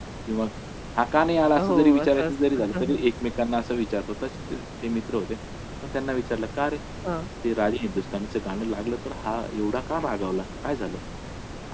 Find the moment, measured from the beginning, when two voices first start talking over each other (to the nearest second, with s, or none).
2 s